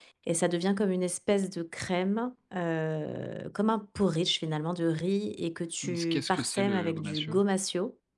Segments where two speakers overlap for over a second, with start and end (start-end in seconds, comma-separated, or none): 5.8-7.4